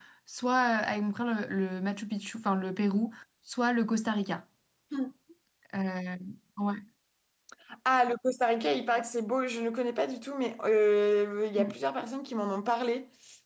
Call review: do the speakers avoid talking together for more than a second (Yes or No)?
Yes